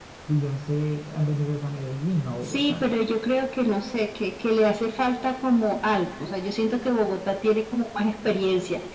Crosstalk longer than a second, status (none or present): none